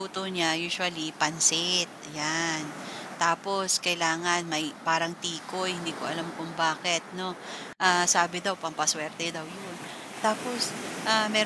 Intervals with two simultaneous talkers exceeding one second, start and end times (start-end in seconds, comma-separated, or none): none